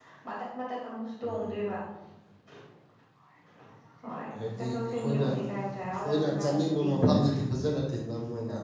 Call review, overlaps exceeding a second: present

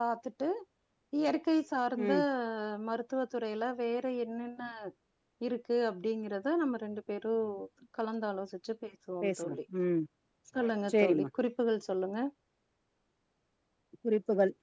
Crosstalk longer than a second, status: none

